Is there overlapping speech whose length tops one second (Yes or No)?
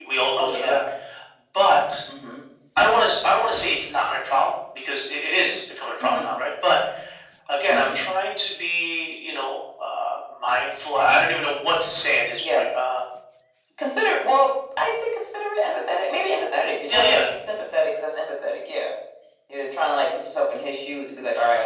No